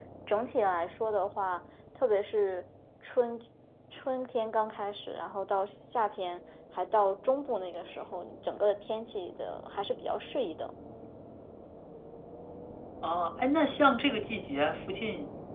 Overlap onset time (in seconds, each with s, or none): none